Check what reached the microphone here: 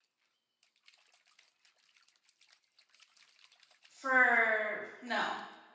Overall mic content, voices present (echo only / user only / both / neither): user only